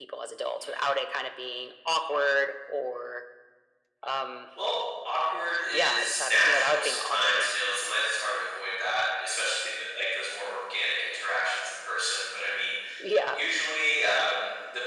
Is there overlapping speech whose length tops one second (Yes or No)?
Yes